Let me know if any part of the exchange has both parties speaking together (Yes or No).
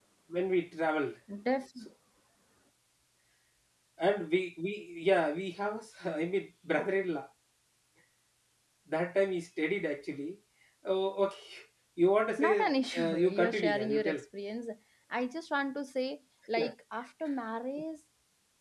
Yes